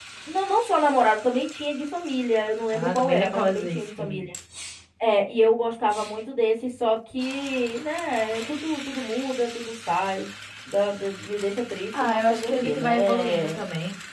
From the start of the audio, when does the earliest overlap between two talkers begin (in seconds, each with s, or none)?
2.7 s